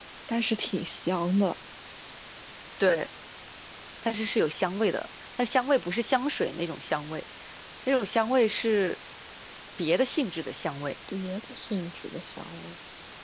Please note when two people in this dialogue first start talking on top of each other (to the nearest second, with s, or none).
none